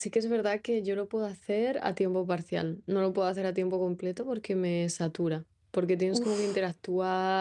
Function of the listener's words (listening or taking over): listening